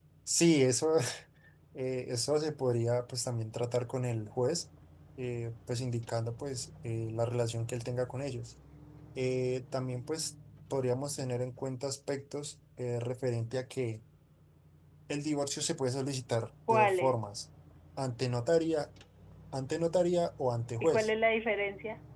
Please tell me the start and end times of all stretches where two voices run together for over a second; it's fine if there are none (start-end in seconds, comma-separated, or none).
none